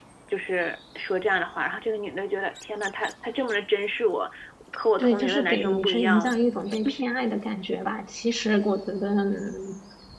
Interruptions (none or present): present